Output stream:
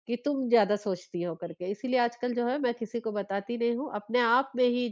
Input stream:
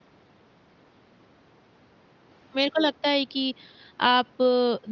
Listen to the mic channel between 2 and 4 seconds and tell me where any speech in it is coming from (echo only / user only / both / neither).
user only